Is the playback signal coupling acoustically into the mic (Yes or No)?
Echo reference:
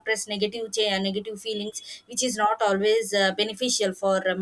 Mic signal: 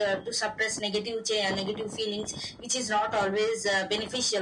Yes